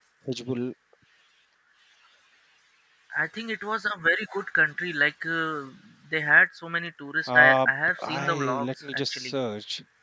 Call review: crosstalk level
present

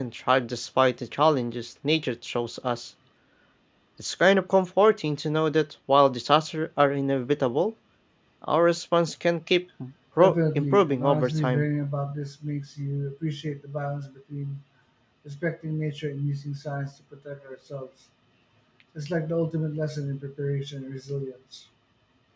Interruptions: present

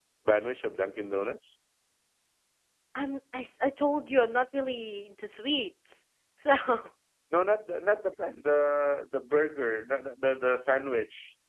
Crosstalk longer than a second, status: none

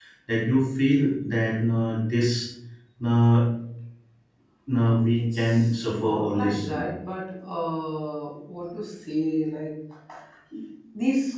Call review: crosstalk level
present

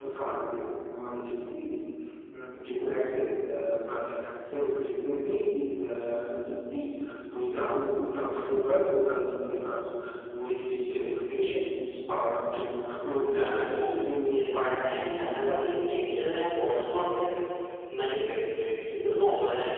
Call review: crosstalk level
present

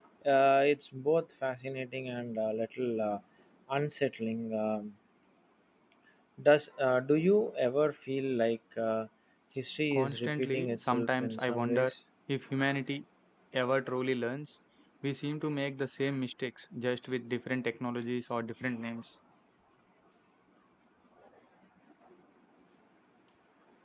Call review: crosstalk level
present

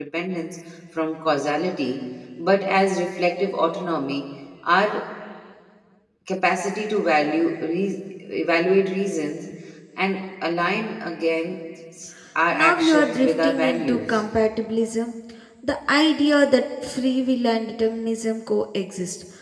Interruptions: present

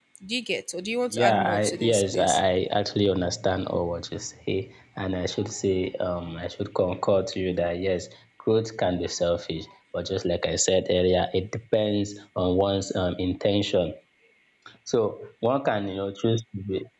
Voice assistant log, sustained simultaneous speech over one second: present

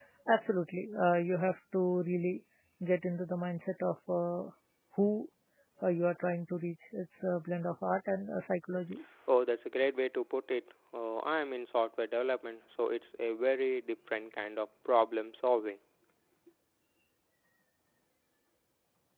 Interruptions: none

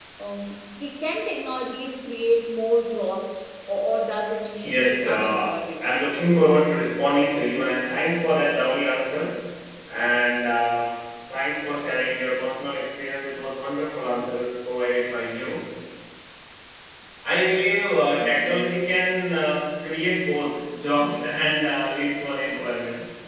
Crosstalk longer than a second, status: present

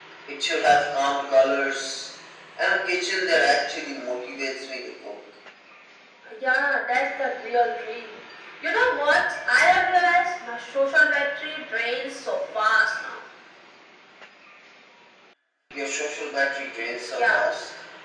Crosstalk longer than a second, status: none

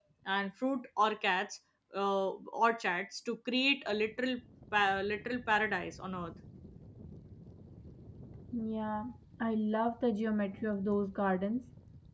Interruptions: none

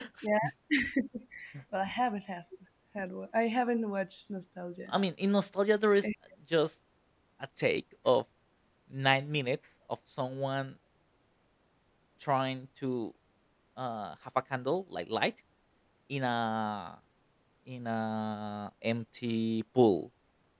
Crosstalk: none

